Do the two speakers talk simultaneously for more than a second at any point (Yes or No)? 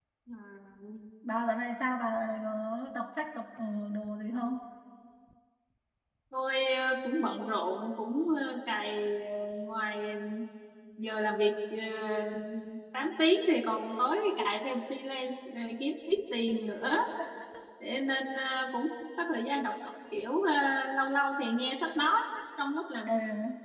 No